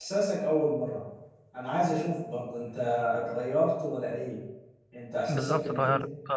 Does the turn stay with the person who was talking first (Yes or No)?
No